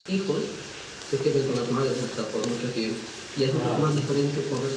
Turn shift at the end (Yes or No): No